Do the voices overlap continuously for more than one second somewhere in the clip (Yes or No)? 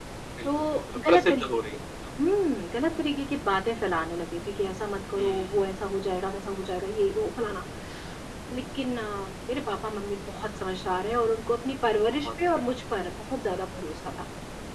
Yes